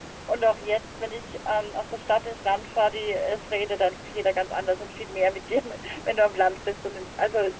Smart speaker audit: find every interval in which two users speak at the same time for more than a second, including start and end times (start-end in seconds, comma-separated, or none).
none